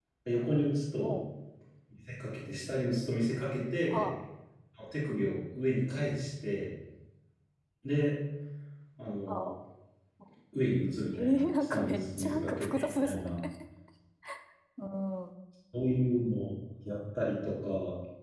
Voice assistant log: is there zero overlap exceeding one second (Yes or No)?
No